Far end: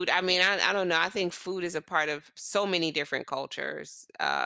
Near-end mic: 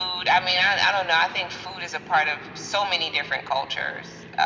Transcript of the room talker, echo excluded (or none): none